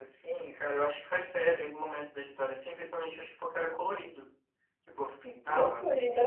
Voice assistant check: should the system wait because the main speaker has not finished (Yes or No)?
No